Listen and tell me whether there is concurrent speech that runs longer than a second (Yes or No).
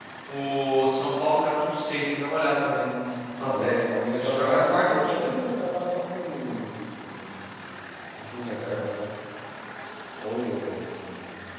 Yes